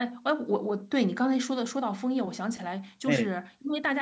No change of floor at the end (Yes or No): Yes